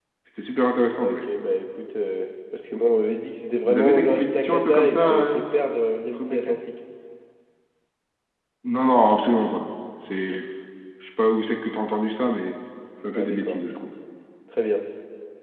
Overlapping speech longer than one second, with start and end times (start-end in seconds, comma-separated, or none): 3.6-5.4